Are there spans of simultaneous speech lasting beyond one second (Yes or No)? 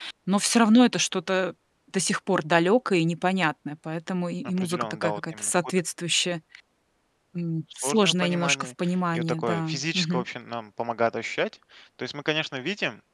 Yes